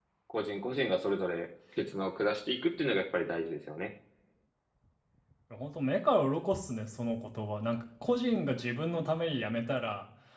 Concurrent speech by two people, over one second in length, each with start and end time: none

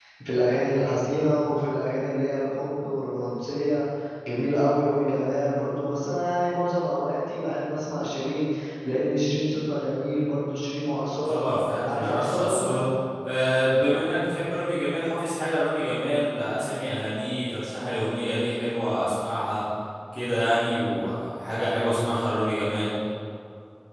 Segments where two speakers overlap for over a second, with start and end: 11.2-12.8

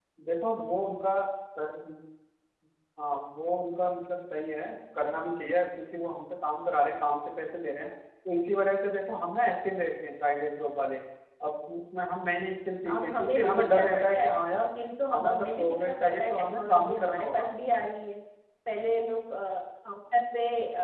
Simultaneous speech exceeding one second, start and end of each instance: 12.9-14.4, 15.1-17.5

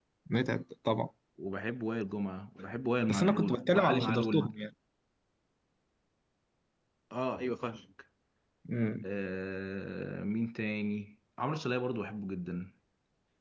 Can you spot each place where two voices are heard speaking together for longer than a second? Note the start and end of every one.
3.1-4.5

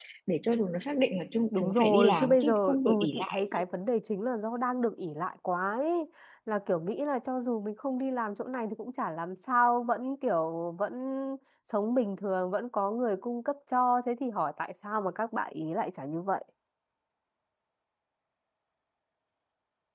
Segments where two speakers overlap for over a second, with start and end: 1.6-3.6

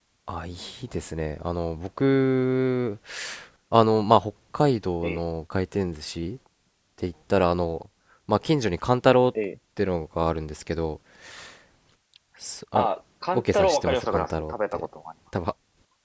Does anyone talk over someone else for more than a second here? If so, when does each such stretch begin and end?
13.3-14.9

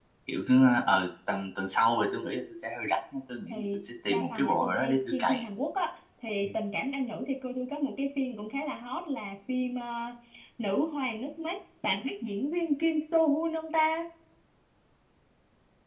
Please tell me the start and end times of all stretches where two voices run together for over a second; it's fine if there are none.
4.1-5.4

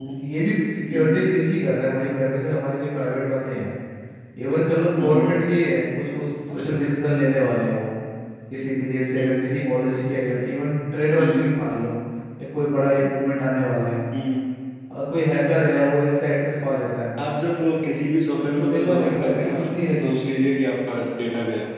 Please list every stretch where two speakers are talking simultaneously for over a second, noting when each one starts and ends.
18.4-20.0

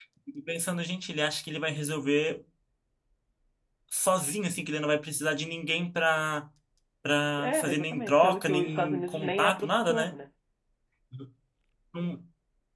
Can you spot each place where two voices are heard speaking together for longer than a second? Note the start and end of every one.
7.4-10.1

